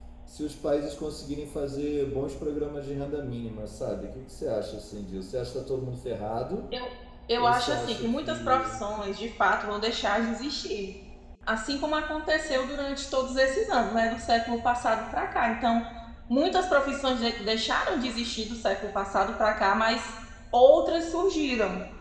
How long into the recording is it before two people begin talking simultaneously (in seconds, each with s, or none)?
7.4 s